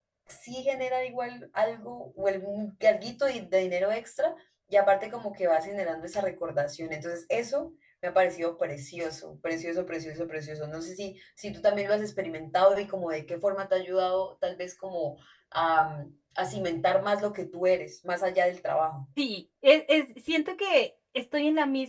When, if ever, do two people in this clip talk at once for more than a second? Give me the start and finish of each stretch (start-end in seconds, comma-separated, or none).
none